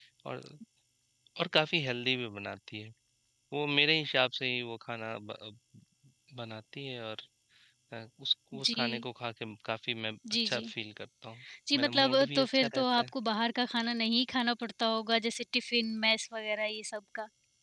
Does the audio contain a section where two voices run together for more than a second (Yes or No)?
Yes